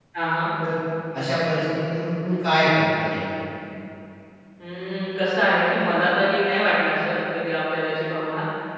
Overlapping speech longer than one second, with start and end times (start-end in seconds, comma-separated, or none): none